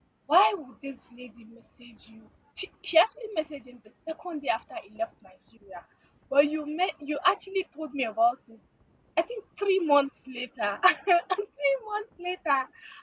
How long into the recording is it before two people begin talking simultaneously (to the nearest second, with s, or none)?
none